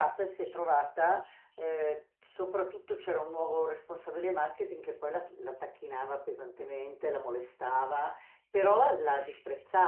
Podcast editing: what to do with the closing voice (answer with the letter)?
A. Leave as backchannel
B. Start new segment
A